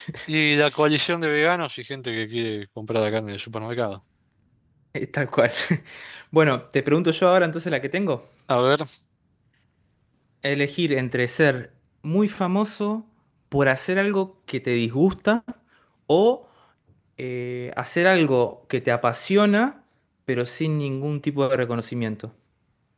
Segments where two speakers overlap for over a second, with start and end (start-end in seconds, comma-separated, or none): none